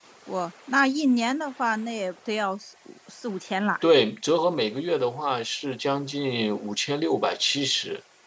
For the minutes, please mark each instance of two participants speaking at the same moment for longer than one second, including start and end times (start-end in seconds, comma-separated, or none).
none